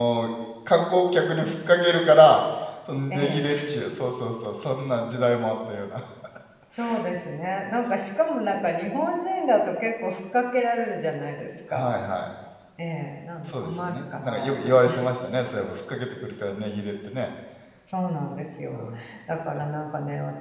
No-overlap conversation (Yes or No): No